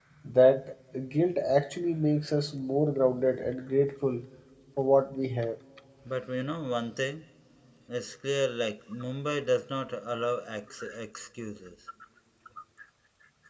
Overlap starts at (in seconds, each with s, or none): none